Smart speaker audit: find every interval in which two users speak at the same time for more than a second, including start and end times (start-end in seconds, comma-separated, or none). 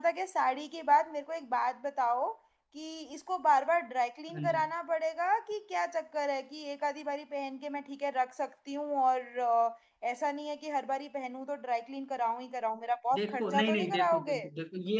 13.1-14.4